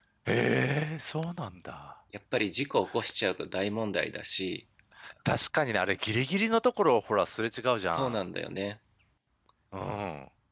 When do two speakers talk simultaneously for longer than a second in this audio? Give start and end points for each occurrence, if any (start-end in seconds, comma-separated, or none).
none